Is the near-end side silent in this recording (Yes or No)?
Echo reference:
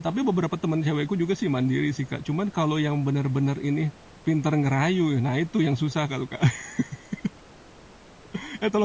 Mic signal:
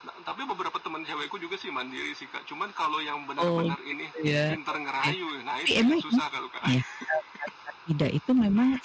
No